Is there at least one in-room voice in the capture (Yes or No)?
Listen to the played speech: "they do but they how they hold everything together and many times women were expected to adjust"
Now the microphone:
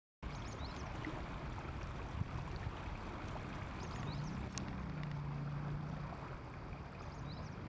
No